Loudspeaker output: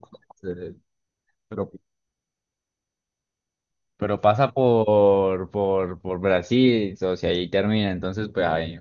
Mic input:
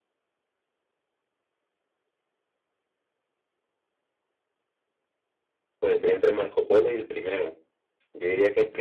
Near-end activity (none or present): present